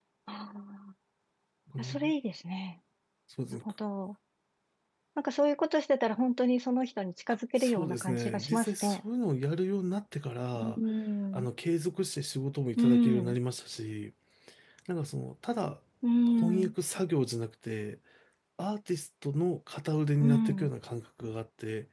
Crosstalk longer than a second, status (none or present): present